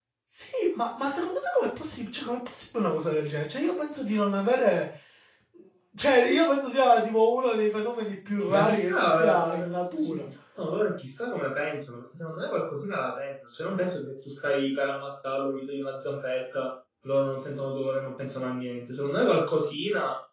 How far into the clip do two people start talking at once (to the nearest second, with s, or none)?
8 s